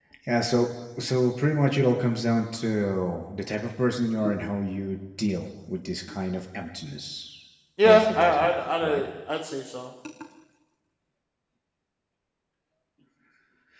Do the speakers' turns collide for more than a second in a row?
Yes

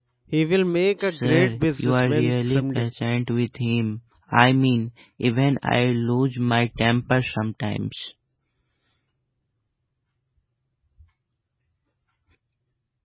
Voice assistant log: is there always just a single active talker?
No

